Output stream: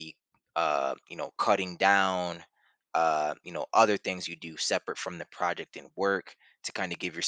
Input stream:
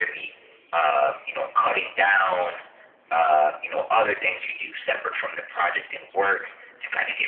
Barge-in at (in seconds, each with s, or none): none